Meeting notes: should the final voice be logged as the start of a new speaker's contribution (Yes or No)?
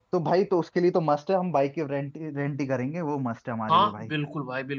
Yes